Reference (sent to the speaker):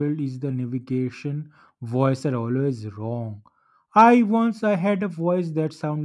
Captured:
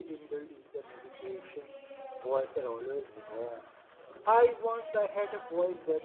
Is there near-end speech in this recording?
Yes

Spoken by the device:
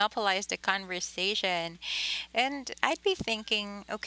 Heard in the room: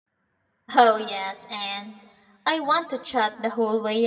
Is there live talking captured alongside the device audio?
Yes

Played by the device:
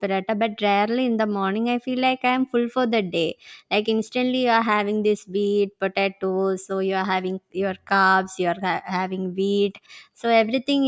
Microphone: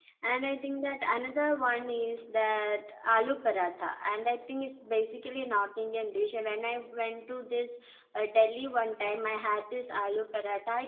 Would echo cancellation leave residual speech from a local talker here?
Yes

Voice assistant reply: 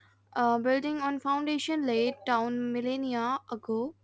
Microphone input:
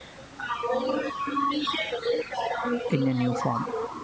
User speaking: Yes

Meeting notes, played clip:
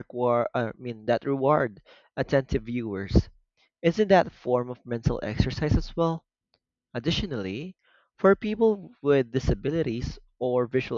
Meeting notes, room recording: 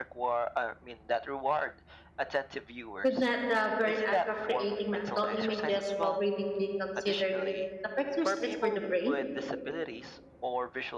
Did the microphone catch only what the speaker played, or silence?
No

